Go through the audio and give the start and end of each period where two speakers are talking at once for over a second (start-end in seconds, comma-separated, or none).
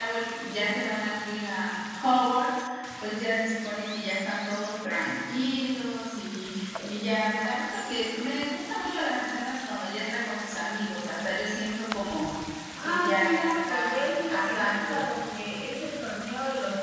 12.8-15.0